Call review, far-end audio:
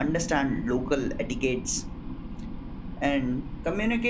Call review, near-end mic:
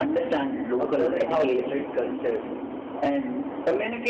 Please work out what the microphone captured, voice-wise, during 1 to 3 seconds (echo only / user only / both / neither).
both